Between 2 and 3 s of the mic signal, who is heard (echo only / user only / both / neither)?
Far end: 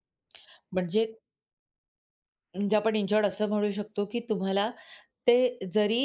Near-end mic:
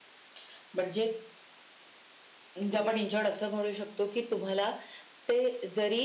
echo only